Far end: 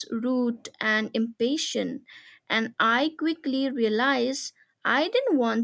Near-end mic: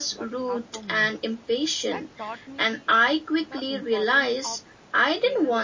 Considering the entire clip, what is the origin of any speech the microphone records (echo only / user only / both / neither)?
both